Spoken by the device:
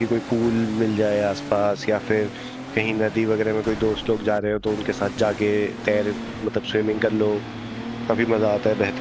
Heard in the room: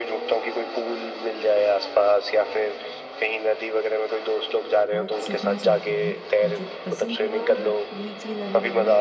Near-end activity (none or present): present